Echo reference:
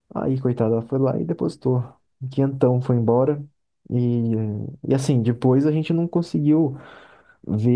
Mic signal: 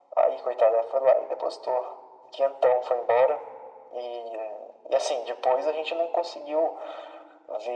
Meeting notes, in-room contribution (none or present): none